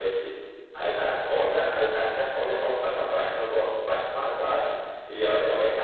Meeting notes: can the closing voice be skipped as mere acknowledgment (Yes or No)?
Yes